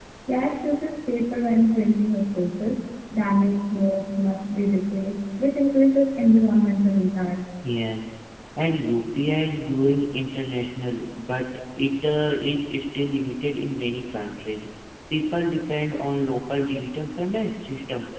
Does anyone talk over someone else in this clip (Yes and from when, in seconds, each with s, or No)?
No